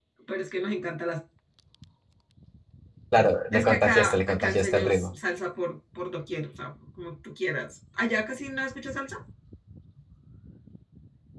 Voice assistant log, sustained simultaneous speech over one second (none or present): present